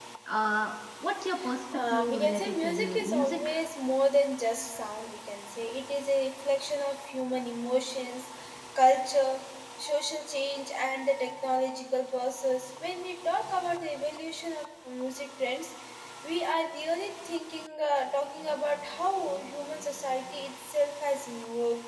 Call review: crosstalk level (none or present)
present